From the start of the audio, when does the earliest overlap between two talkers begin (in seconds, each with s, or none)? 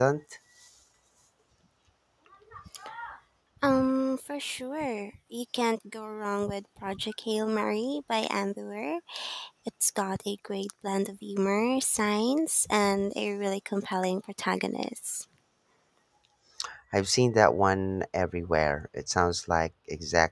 none